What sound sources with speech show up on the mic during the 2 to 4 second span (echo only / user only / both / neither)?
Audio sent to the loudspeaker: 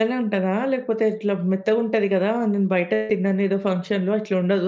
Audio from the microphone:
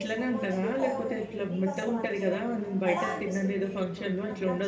both